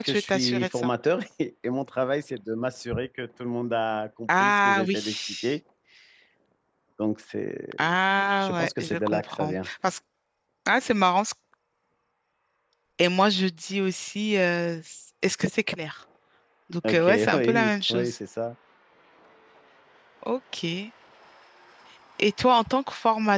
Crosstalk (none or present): present